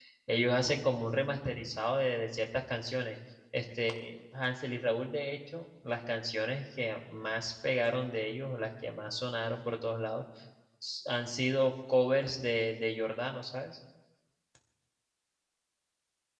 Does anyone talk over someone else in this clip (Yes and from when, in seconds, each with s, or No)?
No